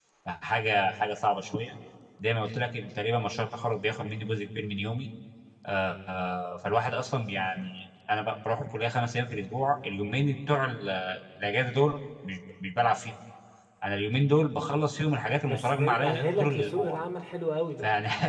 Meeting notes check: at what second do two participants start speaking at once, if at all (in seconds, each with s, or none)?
15.4 s